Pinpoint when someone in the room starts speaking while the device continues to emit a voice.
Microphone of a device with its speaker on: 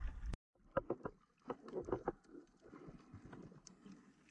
none

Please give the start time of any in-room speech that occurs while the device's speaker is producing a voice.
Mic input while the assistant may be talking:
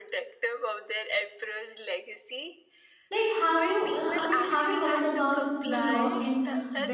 3.1 s

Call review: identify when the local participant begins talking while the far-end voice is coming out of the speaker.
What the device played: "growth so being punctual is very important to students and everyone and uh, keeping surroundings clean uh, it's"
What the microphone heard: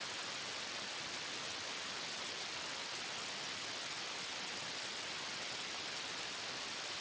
none

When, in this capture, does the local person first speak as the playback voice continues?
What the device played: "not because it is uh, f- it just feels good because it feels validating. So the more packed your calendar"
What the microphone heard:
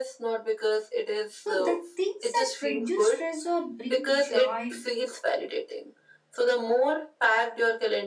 1.4 s

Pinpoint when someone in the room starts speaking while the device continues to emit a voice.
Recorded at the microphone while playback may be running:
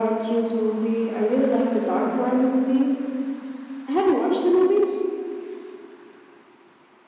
none

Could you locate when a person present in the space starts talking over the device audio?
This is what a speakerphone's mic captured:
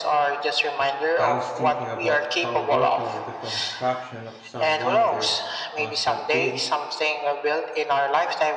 1.2 s

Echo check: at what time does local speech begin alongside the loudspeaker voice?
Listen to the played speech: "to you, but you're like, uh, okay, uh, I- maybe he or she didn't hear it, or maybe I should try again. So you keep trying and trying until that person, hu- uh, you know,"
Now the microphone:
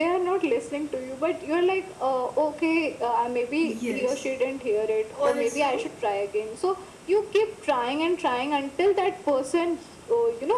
3.6 s

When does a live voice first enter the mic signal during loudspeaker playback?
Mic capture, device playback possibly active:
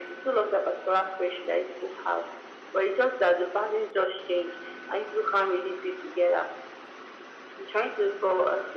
none

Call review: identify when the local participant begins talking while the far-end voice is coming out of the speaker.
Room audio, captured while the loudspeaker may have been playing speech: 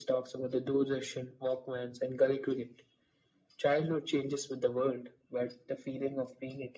none

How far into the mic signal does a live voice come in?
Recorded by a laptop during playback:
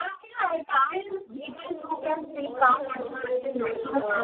1.3 s

